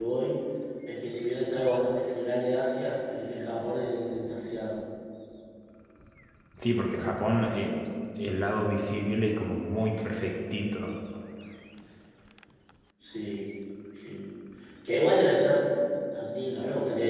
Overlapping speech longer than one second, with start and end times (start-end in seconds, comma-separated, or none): none